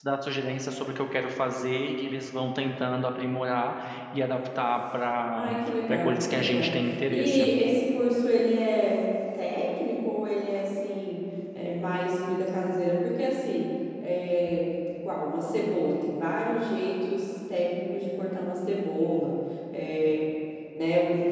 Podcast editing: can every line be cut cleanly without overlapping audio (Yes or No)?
No